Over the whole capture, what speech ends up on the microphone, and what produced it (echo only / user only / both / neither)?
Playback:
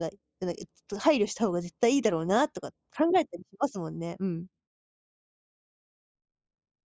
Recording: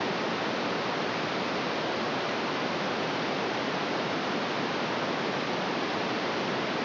neither